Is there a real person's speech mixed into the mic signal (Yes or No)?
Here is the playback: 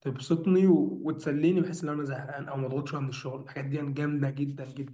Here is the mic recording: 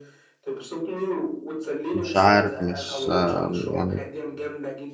Yes